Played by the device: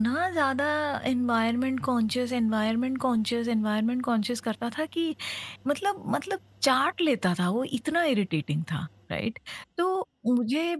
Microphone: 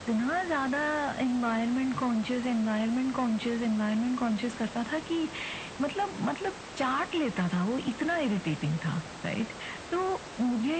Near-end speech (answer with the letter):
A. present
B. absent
B